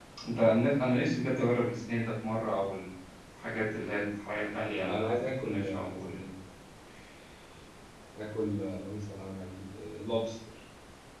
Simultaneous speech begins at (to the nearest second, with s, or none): 5 s